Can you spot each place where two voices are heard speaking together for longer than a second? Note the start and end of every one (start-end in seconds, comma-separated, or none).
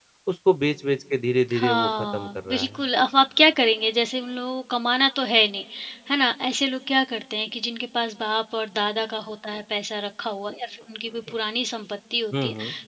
1.5-2.8